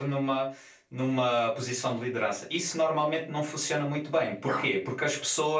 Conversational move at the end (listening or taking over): listening